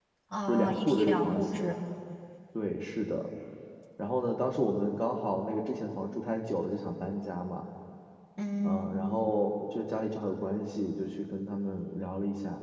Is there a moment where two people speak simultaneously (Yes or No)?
Yes